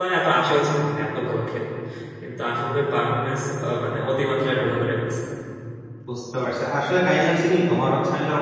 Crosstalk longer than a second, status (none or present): none